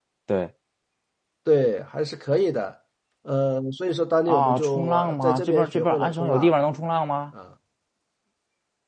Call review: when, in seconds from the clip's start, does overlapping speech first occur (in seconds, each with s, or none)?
4.3 s